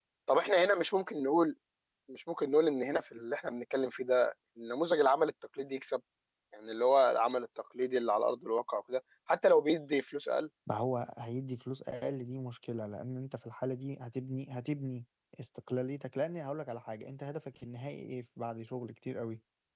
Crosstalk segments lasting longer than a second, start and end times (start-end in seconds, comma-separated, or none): none